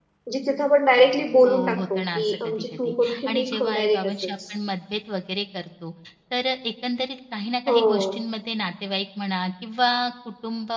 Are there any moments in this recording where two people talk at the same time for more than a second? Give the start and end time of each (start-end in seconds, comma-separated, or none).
1.4-4.3